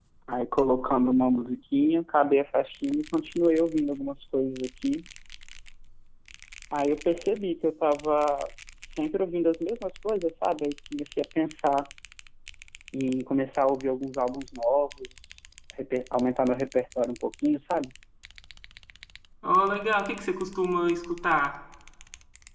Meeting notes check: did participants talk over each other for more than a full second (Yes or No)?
No